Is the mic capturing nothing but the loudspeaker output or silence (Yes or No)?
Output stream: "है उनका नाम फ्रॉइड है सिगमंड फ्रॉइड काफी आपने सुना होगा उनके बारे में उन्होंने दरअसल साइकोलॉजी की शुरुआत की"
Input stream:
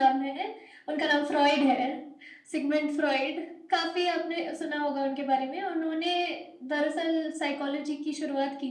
Yes